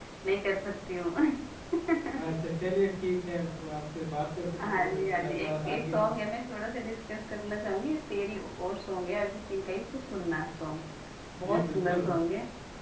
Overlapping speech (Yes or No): Yes